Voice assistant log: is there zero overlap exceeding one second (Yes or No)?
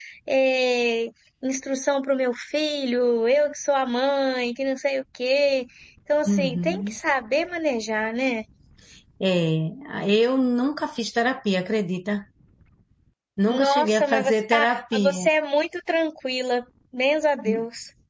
No